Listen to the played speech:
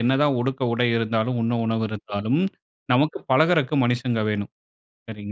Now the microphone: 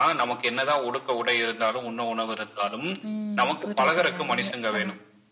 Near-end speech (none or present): present